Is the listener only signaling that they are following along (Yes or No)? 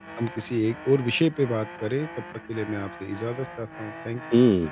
No